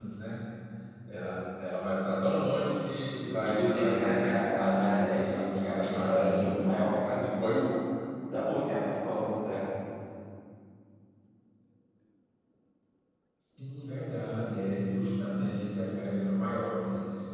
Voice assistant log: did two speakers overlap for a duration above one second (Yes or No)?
Yes